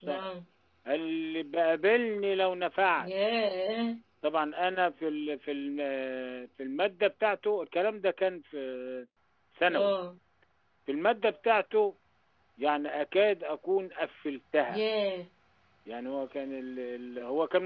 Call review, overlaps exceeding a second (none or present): none